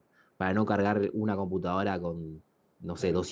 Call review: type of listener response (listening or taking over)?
listening